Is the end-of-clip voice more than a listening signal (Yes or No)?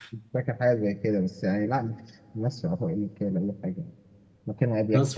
Yes